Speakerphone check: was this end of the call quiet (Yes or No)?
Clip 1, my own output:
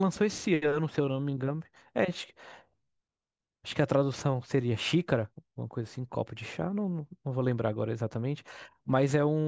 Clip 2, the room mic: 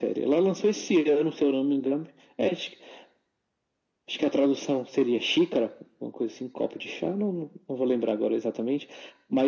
Yes